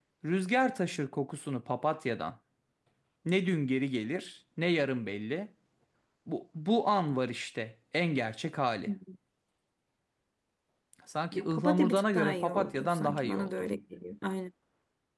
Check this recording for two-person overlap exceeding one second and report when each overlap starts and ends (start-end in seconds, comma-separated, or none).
11.3-13.5